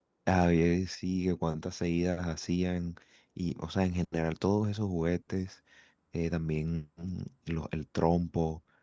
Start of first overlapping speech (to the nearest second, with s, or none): none